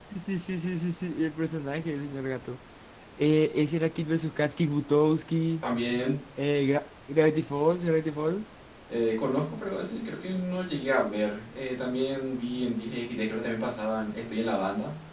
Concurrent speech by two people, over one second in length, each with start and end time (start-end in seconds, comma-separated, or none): none